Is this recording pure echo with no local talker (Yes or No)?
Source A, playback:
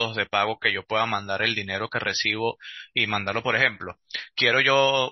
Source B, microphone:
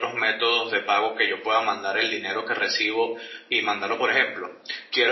Yes